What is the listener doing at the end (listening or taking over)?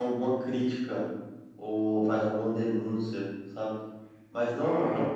listening